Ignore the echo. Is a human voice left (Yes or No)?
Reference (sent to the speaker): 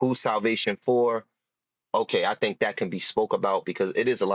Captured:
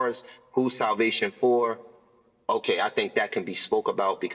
No